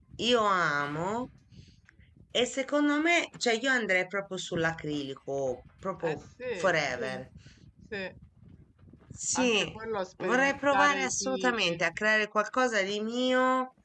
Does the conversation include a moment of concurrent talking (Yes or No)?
Yes